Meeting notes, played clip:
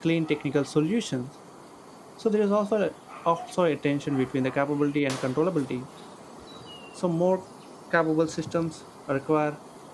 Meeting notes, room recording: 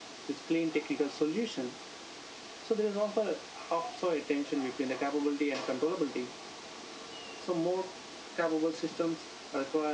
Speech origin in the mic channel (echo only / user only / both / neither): echo only